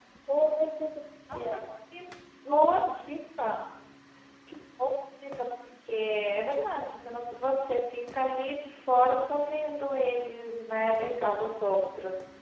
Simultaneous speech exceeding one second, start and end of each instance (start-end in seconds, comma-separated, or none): none